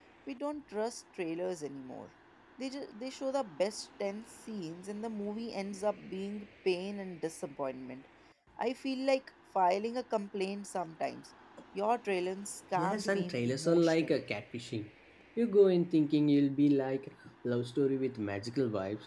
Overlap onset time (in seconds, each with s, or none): 12.8 s